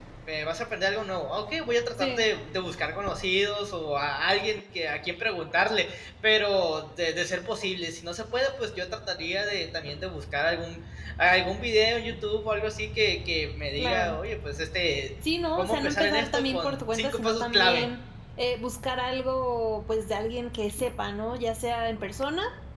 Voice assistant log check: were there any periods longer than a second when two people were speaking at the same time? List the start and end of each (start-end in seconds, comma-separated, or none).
15.6-17.9